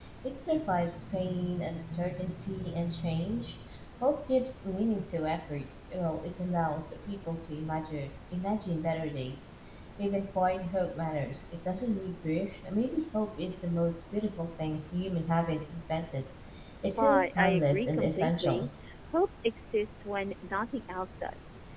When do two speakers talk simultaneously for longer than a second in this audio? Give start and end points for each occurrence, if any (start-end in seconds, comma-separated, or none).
17.0-18.6